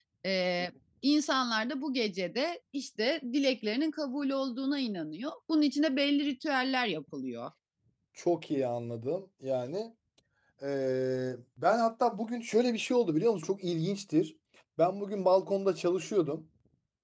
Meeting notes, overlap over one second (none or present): none